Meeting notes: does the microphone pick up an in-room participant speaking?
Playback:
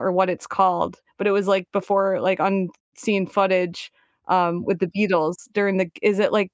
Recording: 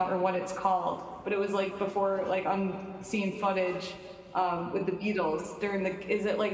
No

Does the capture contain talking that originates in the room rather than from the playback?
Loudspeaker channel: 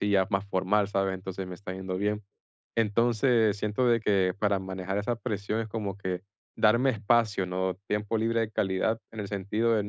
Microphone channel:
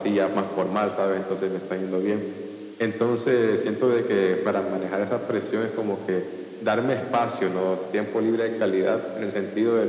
No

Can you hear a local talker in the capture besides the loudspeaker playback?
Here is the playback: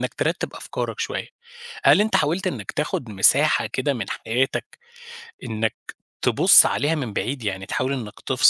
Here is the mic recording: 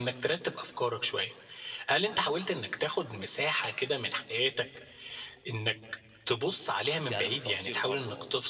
Yes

